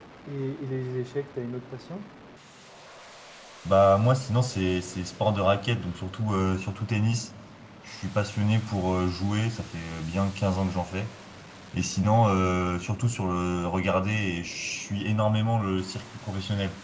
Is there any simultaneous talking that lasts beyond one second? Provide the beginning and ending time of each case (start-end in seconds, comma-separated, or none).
none